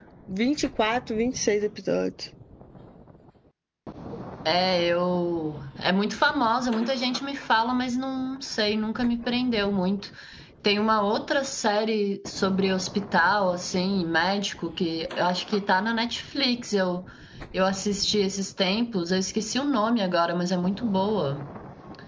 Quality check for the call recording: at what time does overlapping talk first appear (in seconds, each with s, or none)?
none